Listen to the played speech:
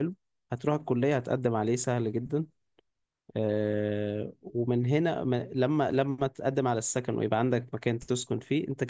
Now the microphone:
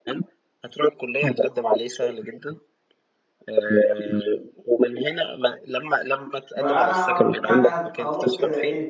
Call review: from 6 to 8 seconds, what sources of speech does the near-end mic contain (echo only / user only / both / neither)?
both